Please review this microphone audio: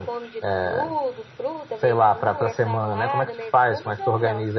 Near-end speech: none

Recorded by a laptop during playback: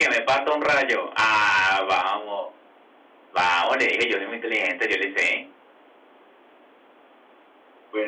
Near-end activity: none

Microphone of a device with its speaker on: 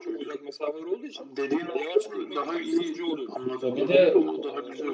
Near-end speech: present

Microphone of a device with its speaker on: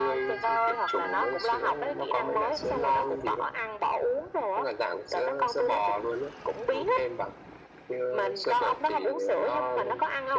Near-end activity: none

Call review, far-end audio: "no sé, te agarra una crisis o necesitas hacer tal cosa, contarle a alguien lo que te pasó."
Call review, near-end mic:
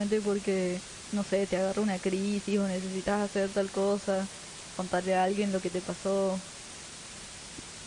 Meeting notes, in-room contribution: none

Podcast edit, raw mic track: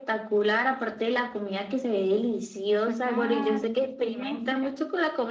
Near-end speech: present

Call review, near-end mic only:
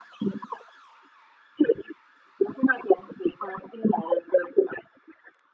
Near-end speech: none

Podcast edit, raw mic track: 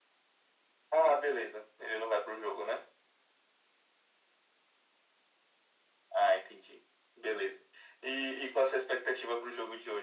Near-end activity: none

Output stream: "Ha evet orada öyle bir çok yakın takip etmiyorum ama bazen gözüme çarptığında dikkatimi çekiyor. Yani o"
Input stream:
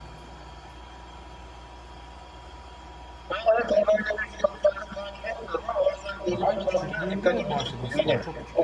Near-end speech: present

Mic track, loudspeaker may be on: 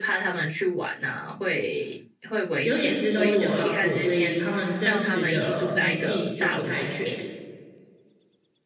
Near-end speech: present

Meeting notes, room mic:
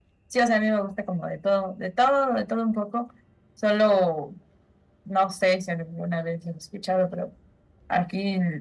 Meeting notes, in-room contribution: none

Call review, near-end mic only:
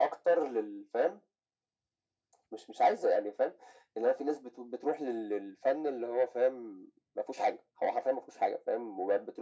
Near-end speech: none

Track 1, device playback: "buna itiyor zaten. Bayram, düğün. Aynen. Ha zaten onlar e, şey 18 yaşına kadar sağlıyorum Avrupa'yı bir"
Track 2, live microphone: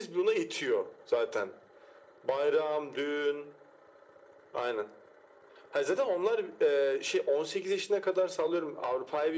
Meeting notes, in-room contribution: none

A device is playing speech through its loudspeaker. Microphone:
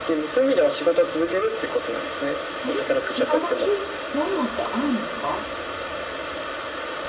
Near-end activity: present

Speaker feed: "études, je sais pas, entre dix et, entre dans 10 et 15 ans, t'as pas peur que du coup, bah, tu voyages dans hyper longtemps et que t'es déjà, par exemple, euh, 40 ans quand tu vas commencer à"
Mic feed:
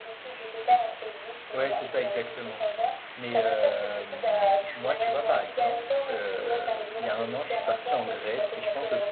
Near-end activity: present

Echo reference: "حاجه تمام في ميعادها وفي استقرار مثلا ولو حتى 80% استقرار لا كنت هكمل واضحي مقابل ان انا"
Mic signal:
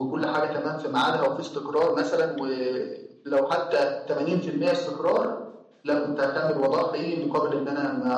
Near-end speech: none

